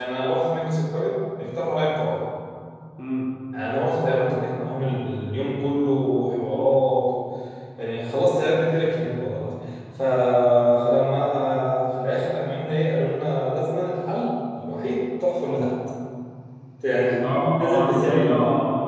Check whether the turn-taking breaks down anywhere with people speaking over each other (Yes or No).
Yes